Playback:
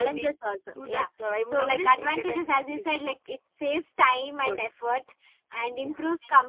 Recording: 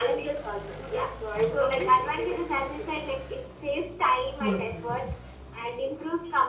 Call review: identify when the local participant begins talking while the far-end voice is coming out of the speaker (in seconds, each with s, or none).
4.4 s